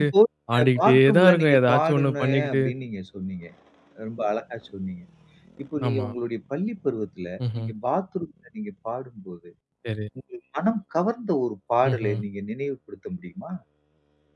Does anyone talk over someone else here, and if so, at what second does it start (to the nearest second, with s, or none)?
1 s